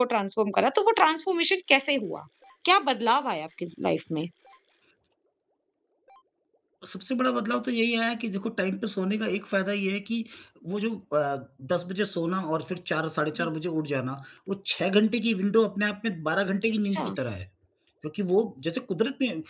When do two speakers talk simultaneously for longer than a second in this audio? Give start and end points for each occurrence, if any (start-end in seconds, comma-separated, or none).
none